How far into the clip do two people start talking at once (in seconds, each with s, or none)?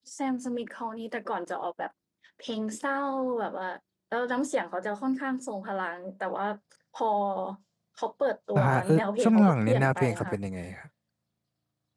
8.6 s